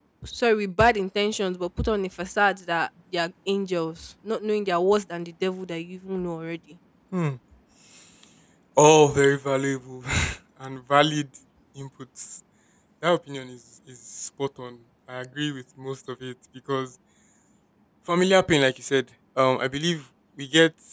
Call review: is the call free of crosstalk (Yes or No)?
Yes